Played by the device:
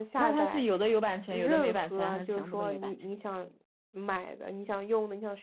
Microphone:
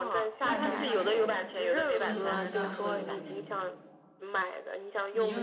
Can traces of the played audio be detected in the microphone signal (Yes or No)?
Yes